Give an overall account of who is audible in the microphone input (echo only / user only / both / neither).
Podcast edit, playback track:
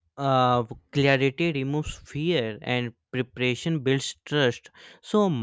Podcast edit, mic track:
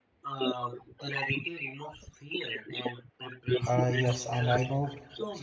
both